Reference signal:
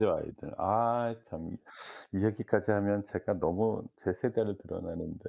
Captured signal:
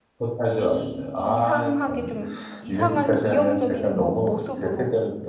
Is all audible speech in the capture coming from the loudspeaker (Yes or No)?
No